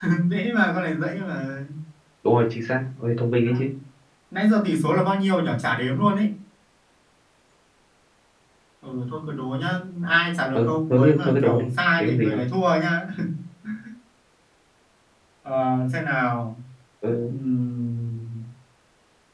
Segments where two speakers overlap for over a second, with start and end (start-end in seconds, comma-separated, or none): 10.5-12.4